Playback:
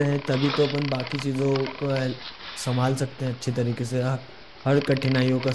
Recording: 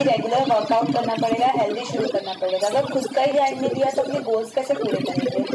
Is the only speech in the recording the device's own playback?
No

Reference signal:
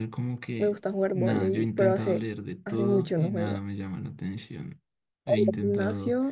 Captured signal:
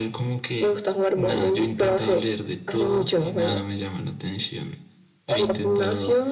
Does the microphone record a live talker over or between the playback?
No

